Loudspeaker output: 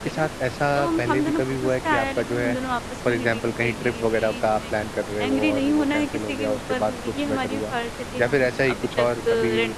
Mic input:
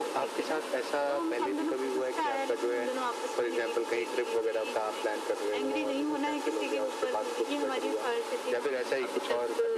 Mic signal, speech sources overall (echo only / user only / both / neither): echo only